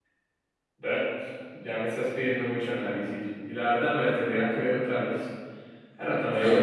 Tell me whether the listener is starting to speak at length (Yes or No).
Yes